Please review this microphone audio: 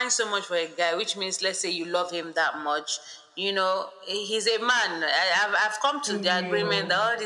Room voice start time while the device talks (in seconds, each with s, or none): 6.0 s